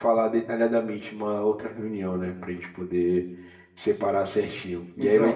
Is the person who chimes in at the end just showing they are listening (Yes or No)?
Yes